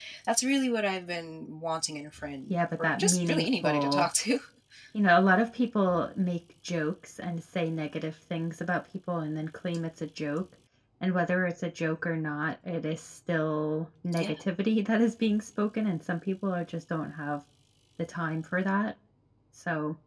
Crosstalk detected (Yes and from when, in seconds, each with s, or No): Yes, from 2.5 s